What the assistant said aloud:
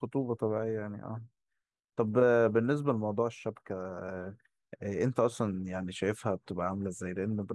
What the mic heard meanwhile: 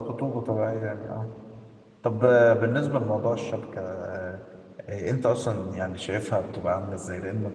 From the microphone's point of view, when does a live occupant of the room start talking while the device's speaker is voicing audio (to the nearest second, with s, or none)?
none